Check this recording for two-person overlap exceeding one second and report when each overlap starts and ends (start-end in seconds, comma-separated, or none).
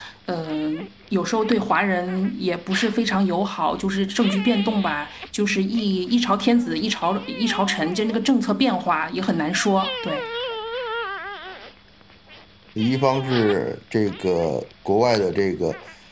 none